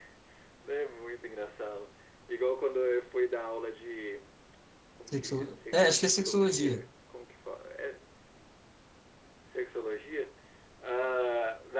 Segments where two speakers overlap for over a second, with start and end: 5.1-6.8

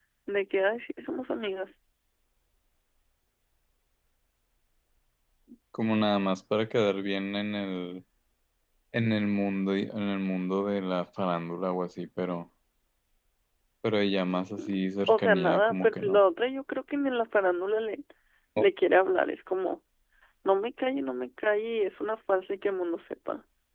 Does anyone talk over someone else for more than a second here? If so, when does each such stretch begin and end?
14.6-16.2

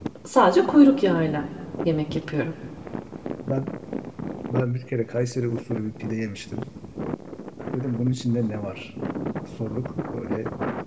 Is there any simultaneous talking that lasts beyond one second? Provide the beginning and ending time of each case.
none

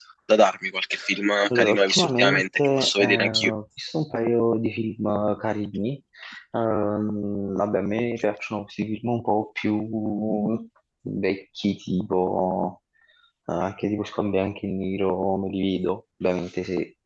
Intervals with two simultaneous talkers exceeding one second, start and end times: 1.5-3.5

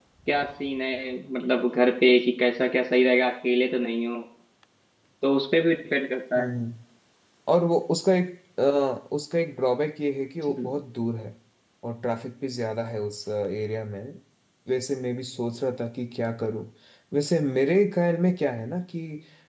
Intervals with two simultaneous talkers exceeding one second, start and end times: none

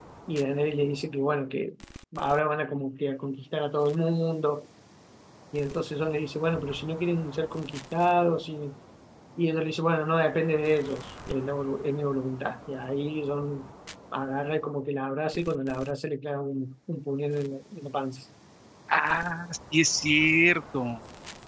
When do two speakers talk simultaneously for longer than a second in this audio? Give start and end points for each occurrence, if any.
none

